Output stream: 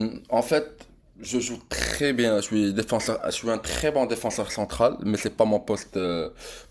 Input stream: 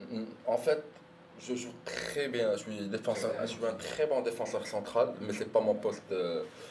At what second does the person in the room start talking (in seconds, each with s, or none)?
3.1 s